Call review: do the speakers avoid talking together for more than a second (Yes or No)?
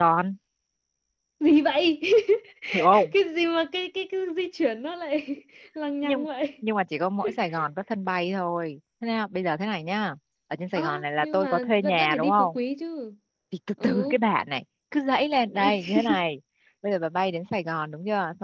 No